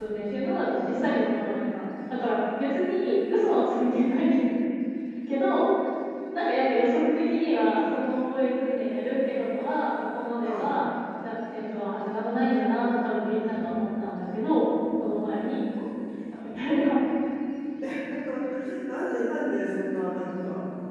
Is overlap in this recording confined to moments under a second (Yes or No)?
Yes